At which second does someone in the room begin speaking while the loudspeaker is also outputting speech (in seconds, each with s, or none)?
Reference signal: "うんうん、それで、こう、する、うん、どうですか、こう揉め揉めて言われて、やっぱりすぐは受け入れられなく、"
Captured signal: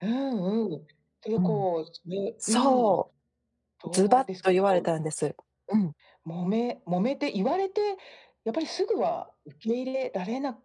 1.3 s